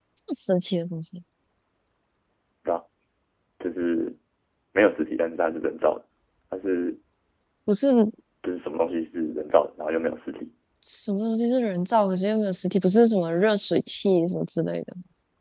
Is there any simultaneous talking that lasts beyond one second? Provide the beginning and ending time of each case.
none

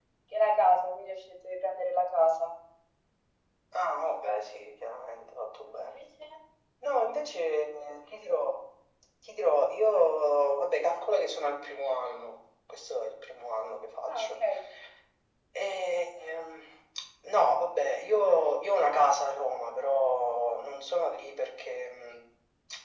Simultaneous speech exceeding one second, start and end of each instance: none

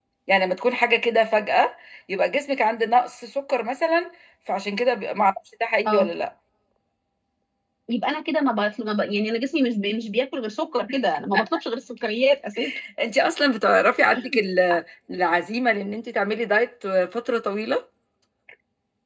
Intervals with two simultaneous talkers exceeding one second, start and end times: none

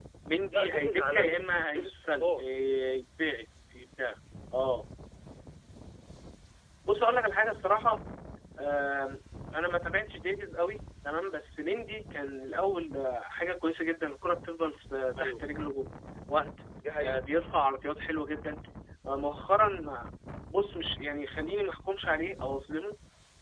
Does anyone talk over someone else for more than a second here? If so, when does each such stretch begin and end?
0.5-2.5

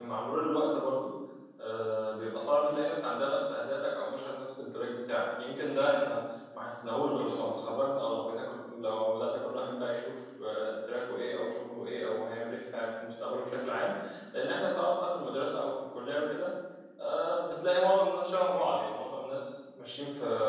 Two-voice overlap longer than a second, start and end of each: none

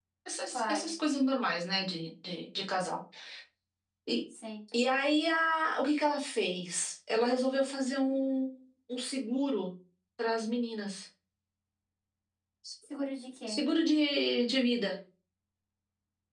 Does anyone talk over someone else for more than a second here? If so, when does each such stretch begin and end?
none

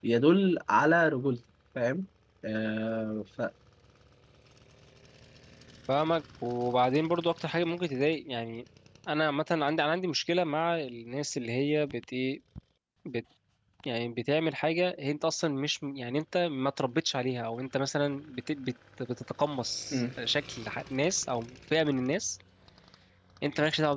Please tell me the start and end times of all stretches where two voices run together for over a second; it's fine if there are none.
none

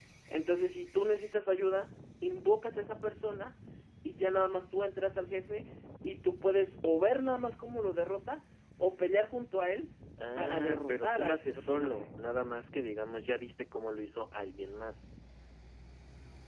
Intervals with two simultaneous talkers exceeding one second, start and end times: 10.4-12.1

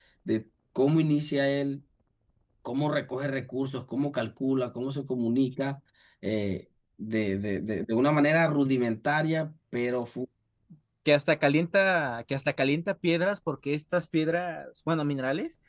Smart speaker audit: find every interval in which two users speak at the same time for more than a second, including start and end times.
none

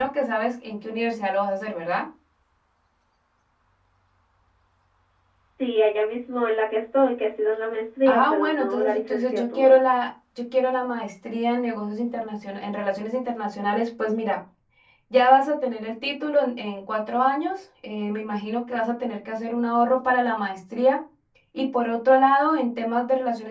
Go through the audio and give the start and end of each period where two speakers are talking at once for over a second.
8.1-9.8

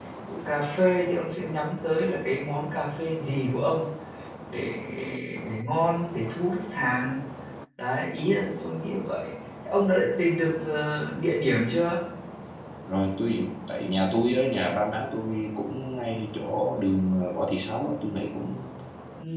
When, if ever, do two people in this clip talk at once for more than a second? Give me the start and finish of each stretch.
none

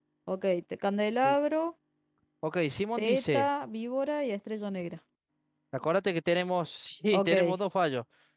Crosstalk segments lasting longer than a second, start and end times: none

